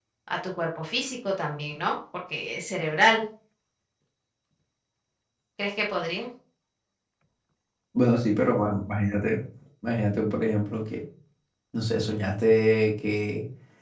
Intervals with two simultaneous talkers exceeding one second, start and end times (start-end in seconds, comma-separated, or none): none